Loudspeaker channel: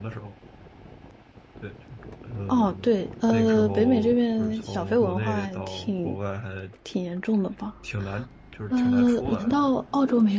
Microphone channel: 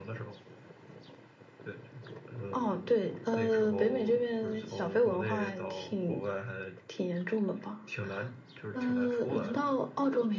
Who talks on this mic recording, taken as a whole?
echo only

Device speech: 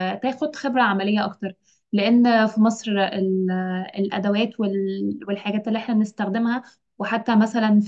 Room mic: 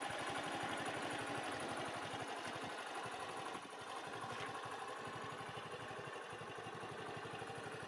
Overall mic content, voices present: neither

